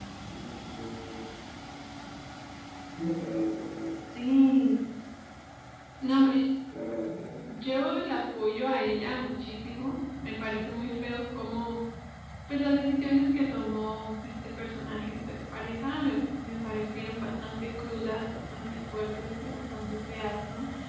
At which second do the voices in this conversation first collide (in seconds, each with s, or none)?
none